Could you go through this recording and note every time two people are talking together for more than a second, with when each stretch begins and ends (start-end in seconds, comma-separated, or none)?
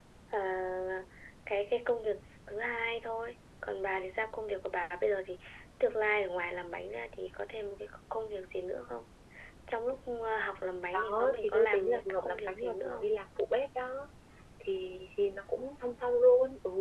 10.9-13.1